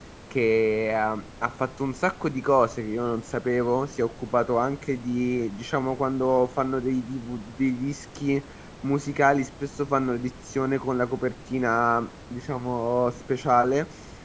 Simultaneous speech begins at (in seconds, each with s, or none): none